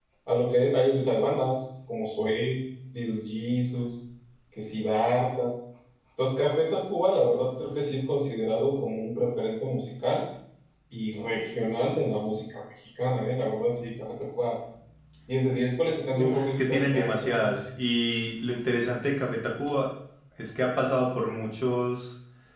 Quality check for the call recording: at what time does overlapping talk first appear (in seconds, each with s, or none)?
16.1 s